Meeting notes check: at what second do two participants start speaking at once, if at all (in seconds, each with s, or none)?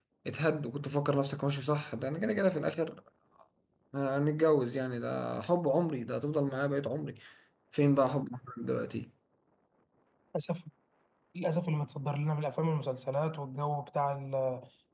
none